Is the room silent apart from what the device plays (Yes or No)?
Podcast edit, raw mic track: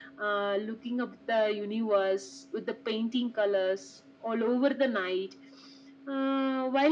Yes